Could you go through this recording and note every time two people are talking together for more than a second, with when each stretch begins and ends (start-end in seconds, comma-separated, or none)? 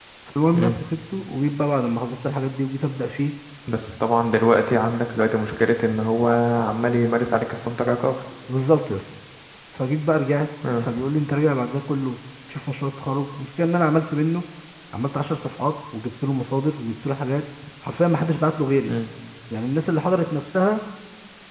none